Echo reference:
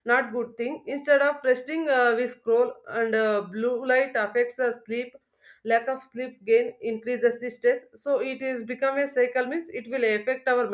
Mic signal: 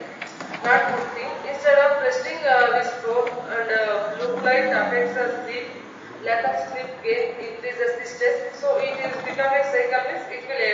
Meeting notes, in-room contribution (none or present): none